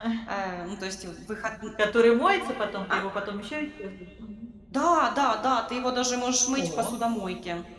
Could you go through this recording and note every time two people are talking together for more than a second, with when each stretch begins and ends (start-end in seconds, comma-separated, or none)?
none